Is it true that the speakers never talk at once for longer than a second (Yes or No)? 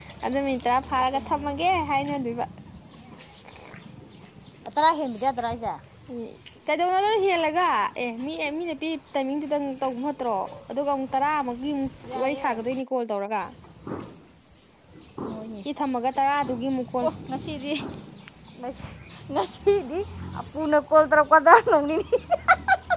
Yes